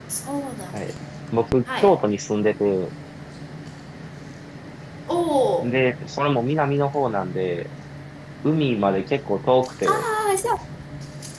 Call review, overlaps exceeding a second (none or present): none